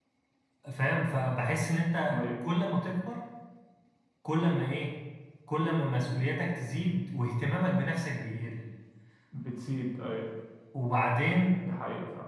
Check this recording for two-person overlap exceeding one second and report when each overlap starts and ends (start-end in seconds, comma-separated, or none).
none